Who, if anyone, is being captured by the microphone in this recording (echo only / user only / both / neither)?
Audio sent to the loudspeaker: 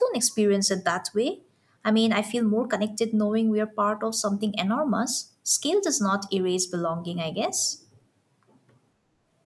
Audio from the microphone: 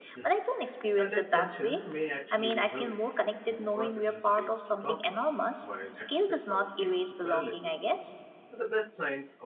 both